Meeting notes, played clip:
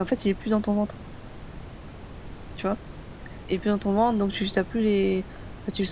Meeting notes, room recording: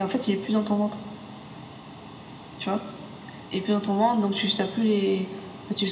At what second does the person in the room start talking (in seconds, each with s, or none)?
none